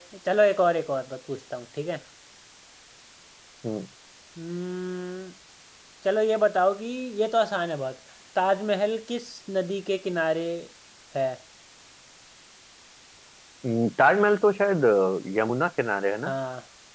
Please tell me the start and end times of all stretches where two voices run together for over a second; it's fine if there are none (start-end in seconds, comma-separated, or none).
none